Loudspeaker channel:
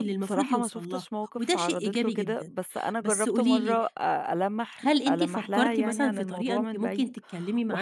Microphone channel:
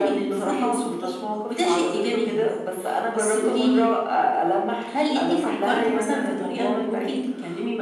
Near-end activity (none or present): none